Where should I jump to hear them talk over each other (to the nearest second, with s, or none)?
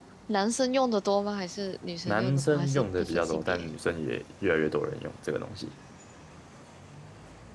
2 s